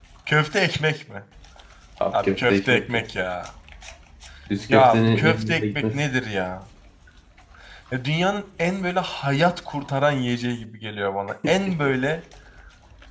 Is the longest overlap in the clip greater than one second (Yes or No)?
Yes